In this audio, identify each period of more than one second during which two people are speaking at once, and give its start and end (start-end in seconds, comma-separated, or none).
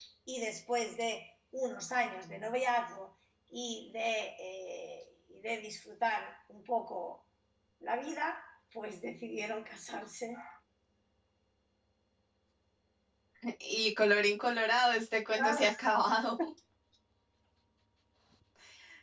none